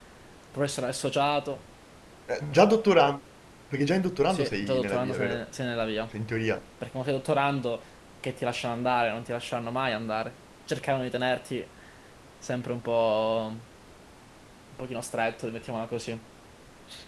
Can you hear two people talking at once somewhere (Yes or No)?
Yes